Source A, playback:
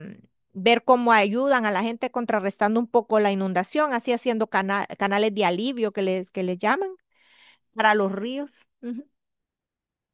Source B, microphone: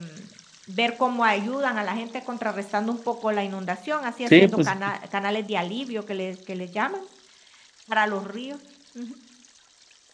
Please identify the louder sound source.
user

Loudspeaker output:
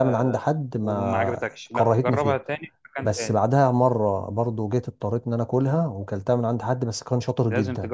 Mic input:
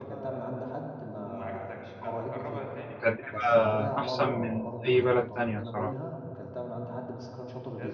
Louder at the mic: user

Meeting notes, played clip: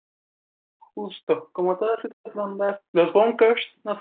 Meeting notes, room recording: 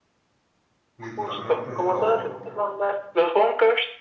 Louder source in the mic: echo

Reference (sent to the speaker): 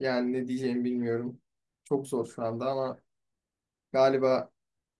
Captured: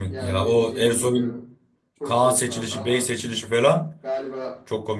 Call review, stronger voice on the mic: user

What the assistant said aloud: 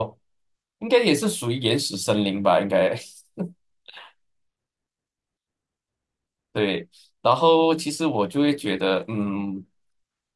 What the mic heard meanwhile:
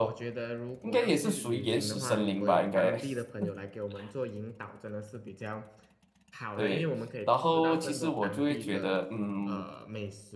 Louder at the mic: echo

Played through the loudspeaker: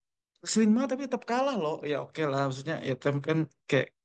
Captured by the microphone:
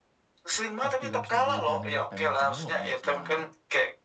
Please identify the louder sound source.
echo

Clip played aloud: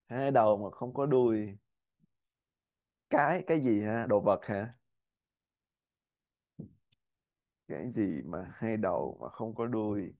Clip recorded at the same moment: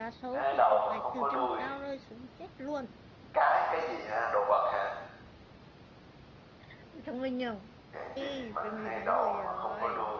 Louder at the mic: echo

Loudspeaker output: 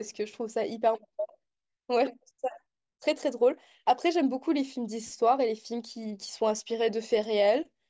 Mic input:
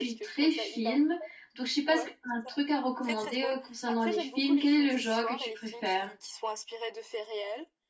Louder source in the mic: user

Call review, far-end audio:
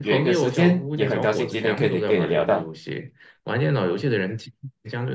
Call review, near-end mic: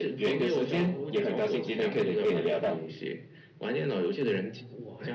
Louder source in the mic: echo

